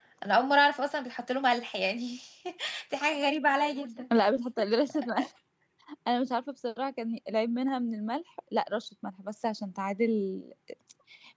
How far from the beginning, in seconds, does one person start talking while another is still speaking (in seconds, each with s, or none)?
none